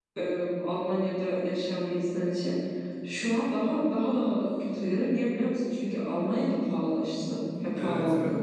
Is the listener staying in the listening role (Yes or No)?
No